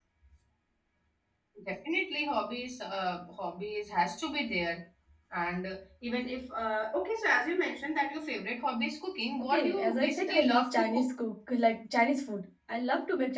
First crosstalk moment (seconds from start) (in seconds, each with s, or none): 9.4 s